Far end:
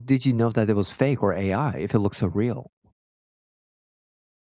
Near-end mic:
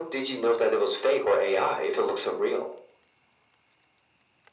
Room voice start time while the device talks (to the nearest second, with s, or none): none